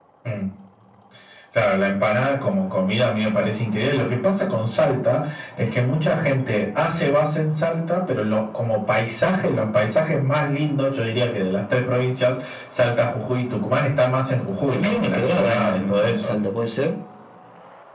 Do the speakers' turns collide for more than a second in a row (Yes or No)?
Yes